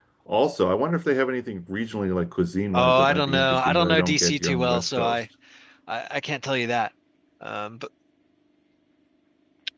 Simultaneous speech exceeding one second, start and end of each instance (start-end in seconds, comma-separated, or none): 2.7-5.2